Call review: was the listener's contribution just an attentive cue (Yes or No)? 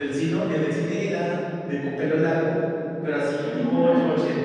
Yes